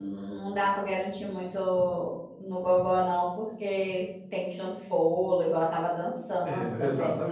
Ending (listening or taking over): taking over